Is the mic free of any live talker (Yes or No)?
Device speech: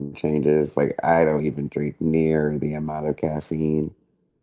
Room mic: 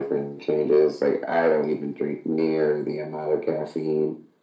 Yes